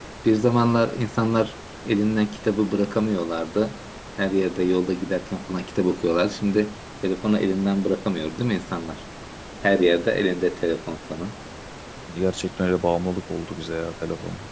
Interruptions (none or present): none